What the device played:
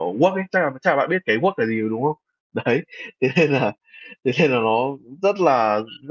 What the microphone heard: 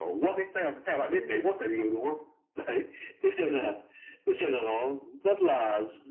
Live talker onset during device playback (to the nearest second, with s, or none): 1 s